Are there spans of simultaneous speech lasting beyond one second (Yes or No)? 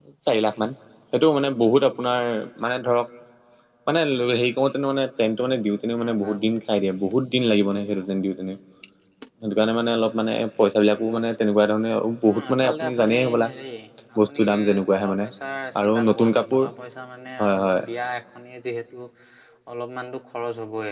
Yes